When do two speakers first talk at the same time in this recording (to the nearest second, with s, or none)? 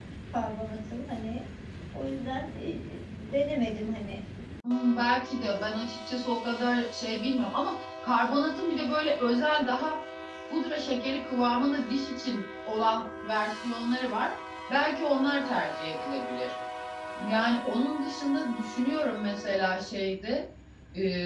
none